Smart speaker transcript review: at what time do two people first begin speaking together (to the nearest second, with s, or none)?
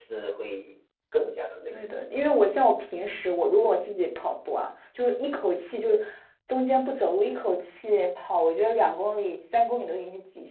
none